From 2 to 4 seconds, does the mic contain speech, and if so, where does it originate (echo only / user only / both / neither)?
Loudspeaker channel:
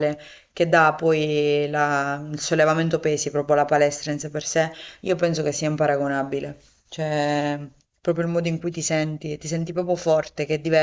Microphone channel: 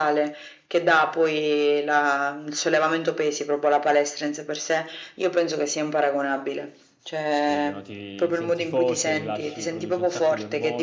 echo only